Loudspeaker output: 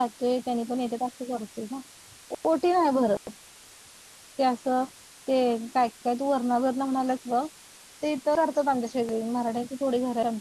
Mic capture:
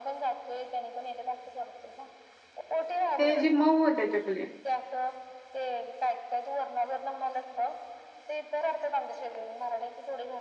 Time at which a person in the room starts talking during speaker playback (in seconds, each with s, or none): 3.2 s